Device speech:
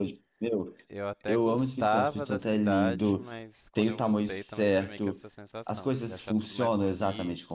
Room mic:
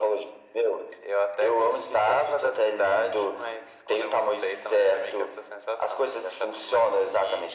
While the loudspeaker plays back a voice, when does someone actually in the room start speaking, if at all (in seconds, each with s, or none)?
none